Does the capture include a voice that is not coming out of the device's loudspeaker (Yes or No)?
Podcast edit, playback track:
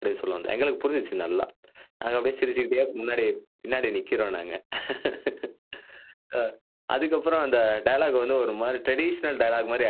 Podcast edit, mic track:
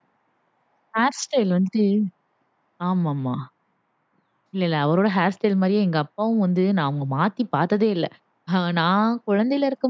Yes